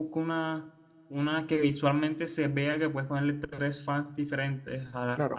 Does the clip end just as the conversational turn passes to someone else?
No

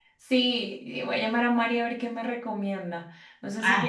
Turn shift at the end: No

